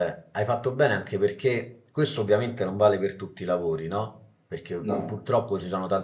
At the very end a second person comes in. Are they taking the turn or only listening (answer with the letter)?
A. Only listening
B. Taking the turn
A